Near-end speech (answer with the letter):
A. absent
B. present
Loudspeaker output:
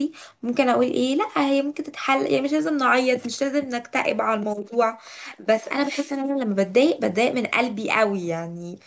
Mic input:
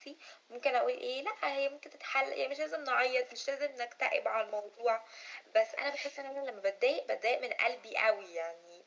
A